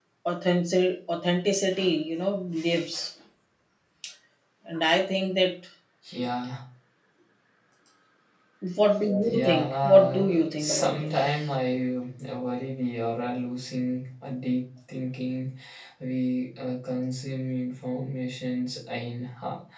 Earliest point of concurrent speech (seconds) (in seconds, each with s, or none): 9.3 s